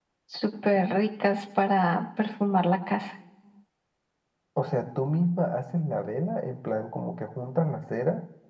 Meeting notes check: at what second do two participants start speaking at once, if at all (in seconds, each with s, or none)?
none